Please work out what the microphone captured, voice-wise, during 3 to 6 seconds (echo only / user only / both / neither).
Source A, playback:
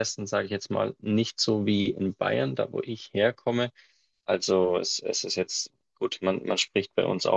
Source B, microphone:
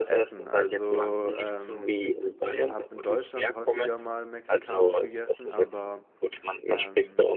both